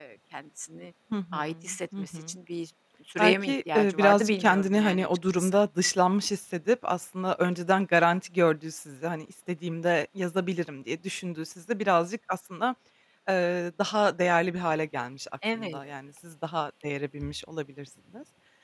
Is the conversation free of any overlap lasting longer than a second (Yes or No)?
No